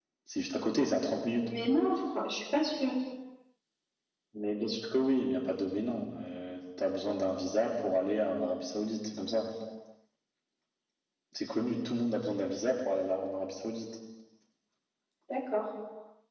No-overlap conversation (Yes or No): Yes